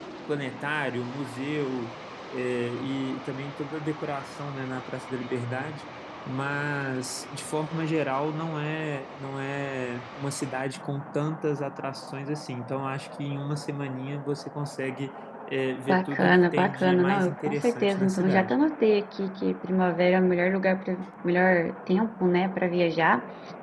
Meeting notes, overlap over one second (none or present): present